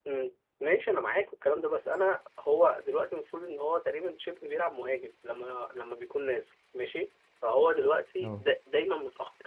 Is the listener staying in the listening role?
Yes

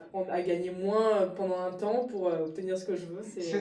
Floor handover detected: Yes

